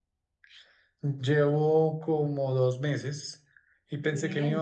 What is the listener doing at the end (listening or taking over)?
listening